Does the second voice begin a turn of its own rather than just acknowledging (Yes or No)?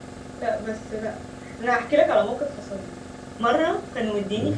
No